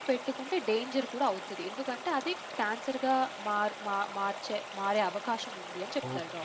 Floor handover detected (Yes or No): Yes